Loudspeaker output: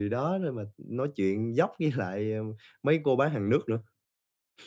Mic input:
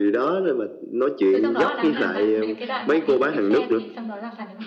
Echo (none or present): present